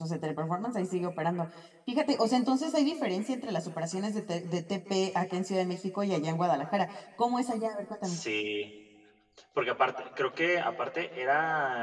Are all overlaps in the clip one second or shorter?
Yes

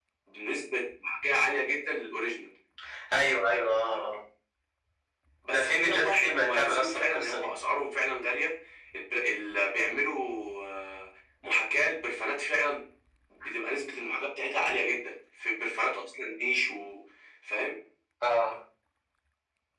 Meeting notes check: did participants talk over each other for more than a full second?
Yes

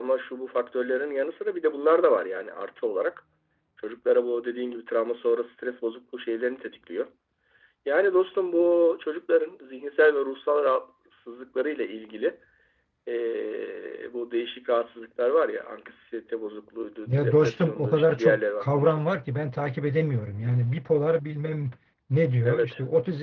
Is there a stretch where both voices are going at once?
Yes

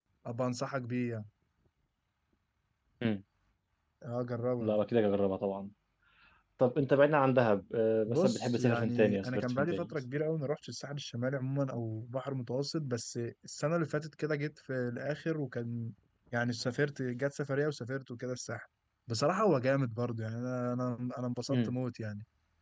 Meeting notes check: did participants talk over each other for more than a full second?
Yes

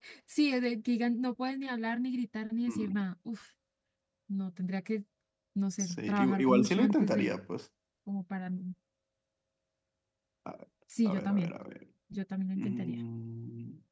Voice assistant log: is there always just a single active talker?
No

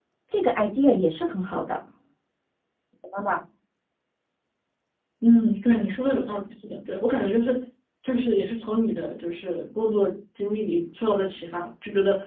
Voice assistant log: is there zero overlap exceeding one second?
Yes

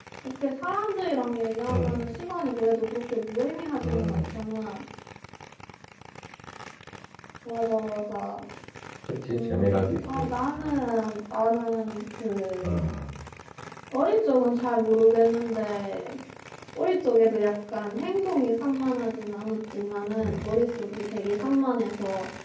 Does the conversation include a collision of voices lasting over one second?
Yes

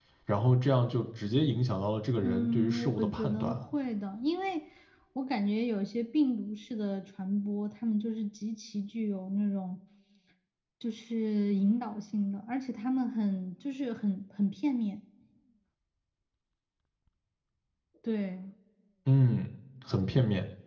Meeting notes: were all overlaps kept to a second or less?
No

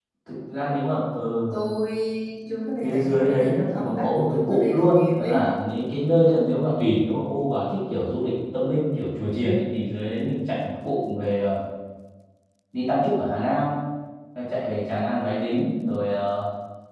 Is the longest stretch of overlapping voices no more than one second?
No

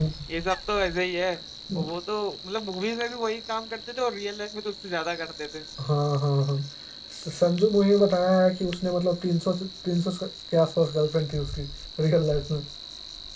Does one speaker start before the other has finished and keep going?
No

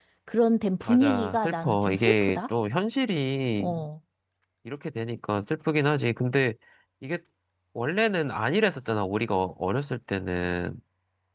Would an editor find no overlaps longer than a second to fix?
No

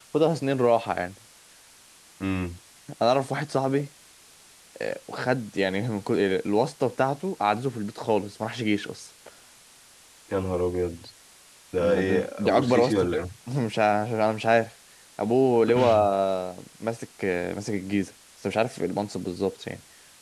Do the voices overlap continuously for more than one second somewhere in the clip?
Yes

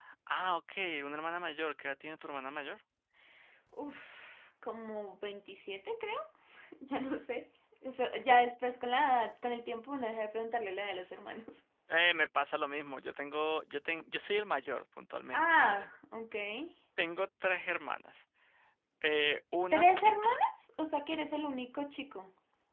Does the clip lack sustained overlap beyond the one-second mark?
Yes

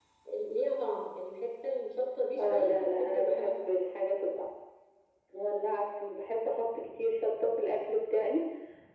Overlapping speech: Yes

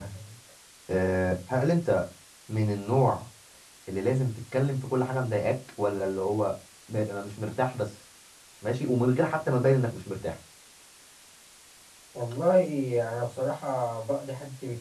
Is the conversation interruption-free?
Yes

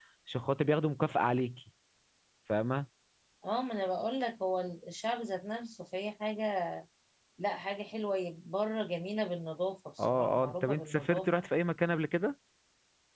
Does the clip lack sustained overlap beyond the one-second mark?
No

